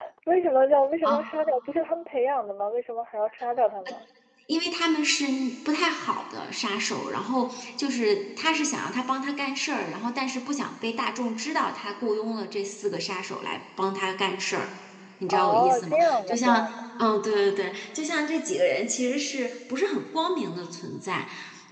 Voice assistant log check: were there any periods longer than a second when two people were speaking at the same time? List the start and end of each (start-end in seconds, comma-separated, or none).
15.3-16.6